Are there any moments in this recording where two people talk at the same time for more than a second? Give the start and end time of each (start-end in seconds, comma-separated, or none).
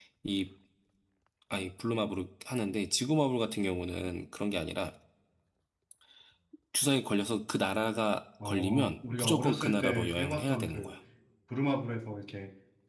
8.4-10.9